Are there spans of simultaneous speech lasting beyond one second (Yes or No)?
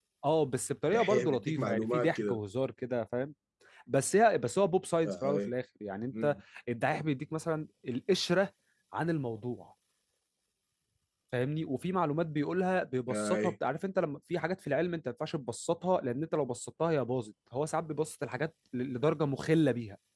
Yes